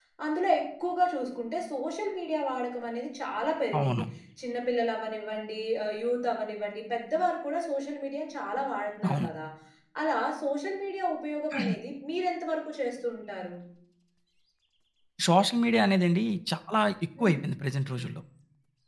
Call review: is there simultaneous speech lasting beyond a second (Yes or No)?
No